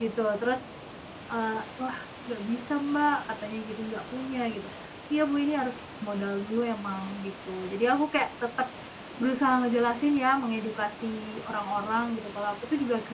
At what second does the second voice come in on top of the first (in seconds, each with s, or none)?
none